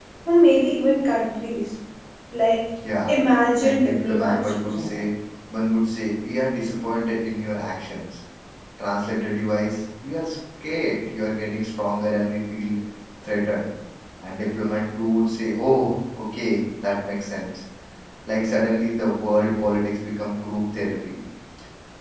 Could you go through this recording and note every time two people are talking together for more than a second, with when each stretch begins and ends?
3.6-5.0

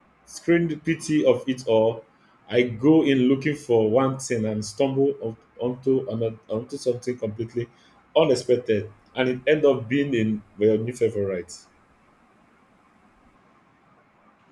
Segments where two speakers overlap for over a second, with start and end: none

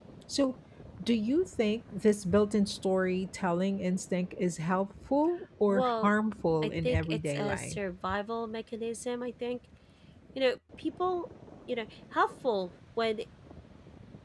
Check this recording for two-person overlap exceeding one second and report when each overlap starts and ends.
6.6-7.8

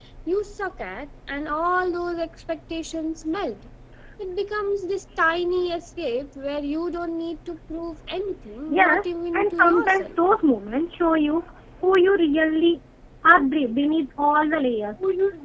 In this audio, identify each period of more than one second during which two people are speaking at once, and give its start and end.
8.7-10.1

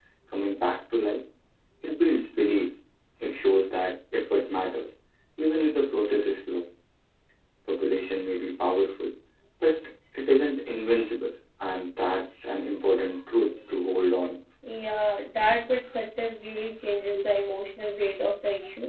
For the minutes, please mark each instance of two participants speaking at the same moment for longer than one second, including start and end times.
none

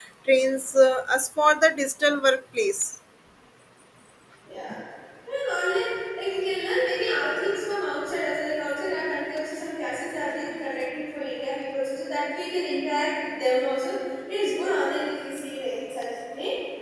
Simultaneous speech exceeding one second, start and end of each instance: none

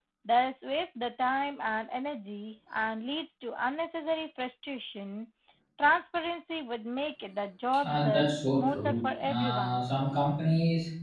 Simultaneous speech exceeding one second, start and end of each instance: 7.8-9.8

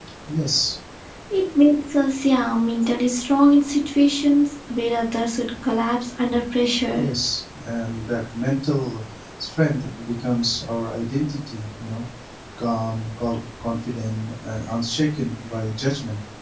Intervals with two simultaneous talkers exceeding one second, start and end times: none

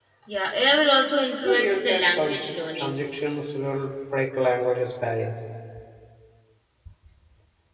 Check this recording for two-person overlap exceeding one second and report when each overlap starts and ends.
1.4-3.0

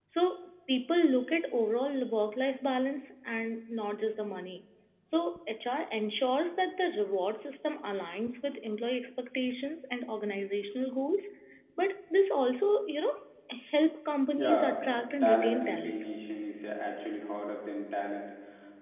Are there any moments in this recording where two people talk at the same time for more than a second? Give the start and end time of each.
14.4-16.0

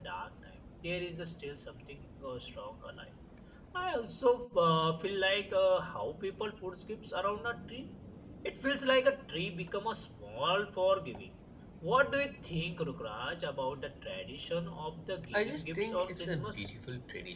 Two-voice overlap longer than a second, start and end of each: 15.3-16.7

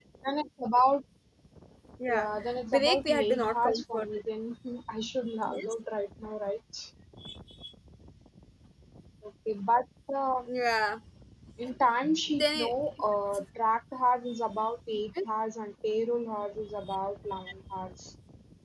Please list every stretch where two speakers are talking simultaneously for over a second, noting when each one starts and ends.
2.7-4.1

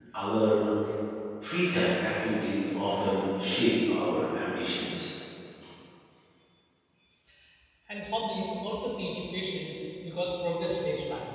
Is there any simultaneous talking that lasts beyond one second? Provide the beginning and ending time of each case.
none

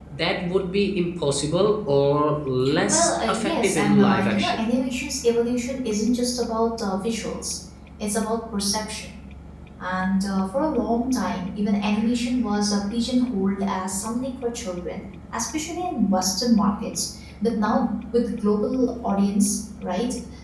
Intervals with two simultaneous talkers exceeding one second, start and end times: 2.9-4.6

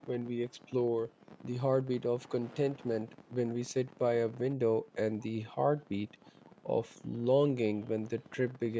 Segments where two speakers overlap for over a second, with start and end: none

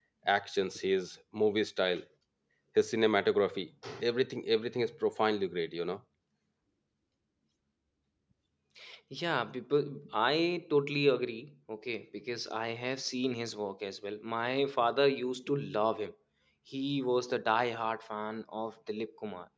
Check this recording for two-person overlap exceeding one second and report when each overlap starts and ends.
none

